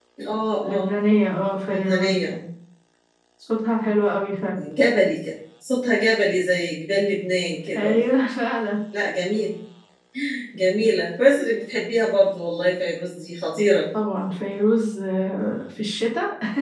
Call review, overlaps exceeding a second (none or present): none